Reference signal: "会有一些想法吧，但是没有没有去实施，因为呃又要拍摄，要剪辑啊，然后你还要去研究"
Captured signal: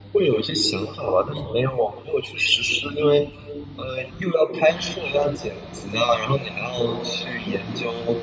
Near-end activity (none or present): none